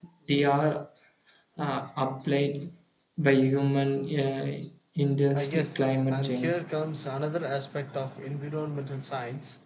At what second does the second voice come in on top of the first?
5 s

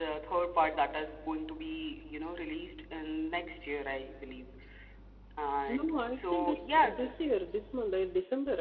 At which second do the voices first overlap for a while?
6 s

